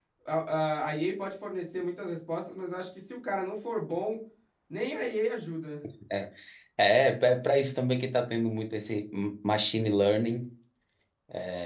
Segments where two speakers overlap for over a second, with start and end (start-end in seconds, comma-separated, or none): none